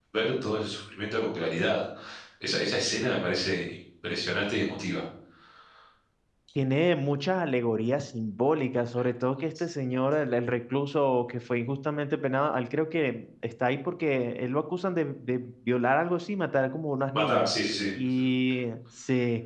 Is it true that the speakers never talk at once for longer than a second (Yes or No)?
Yes